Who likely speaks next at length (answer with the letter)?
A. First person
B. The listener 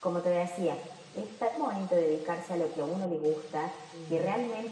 A